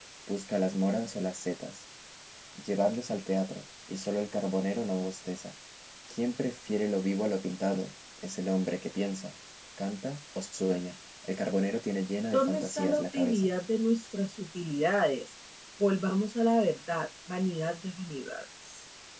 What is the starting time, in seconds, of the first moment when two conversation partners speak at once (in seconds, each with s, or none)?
12.3 s